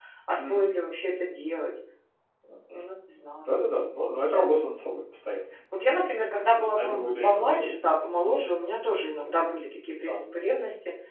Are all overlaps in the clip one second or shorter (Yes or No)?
No